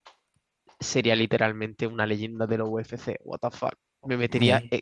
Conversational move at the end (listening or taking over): listening